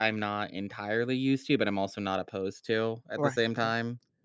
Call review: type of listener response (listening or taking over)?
taking over